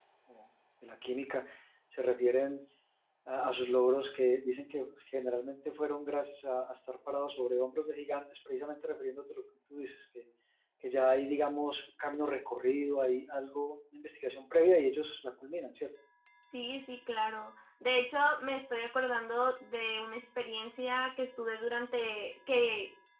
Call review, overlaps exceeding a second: none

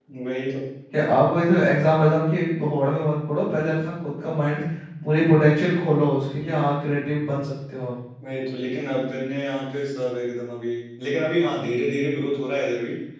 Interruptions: none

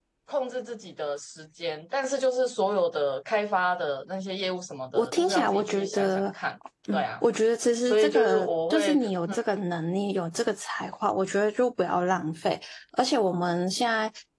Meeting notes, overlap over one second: present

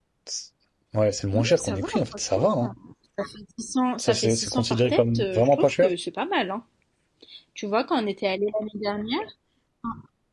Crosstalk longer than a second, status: present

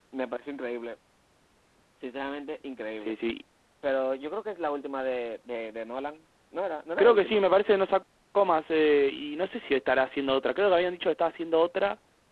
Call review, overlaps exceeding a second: none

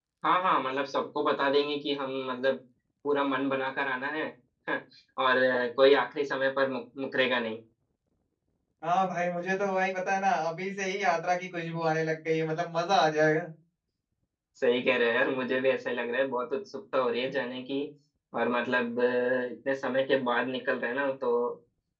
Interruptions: none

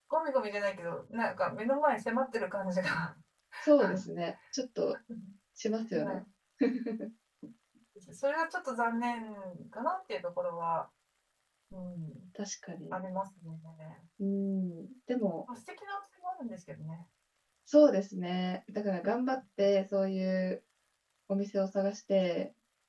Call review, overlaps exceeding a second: none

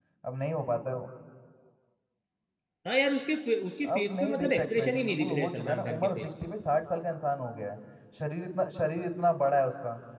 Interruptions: present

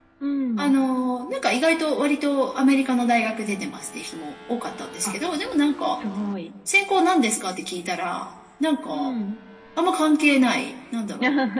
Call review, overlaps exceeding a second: none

